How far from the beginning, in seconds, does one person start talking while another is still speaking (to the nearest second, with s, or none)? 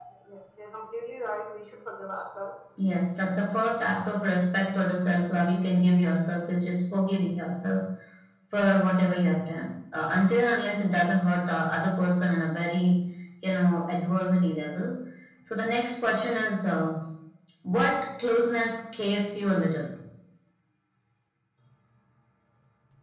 none